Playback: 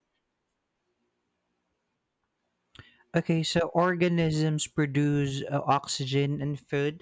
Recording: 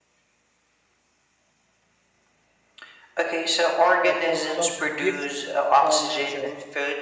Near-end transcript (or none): a process of gifts uh, nature